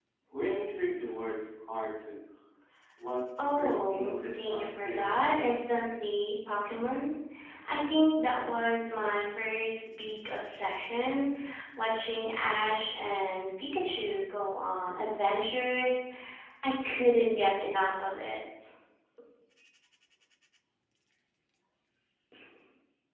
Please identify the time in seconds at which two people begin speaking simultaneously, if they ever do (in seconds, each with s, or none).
3.6 s